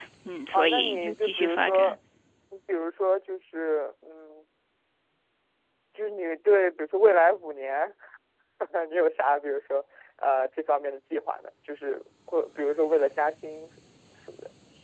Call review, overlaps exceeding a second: present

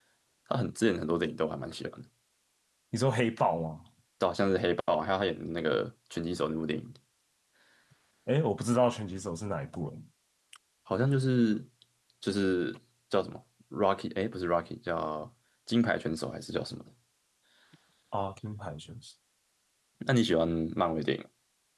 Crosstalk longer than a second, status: none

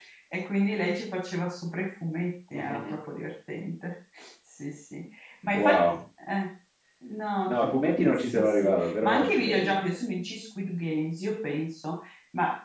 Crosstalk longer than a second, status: present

